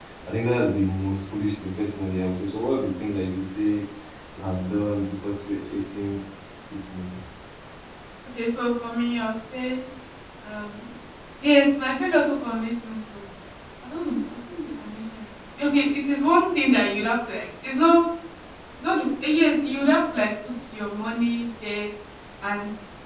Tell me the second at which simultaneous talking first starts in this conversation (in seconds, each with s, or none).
none